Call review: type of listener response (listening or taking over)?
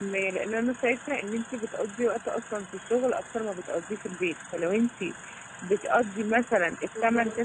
listening